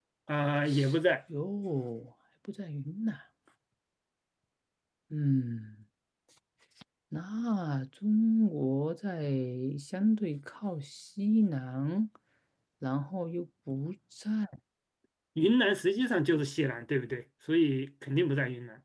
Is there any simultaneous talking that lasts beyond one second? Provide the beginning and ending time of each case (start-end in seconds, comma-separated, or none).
none